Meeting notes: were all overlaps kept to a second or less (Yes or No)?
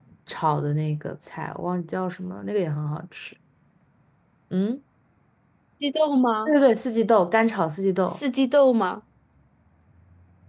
Yes